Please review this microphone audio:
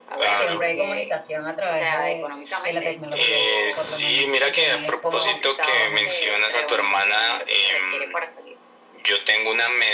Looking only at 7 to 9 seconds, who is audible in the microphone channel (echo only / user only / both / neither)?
echo only